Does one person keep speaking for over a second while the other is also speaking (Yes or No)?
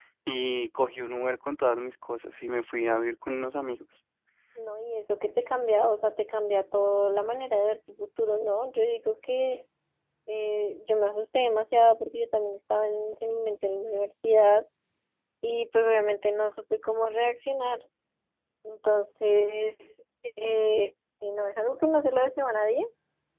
No